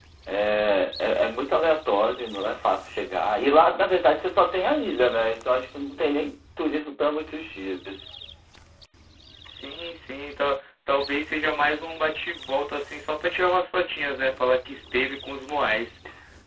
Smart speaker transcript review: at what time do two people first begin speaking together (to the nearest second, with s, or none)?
none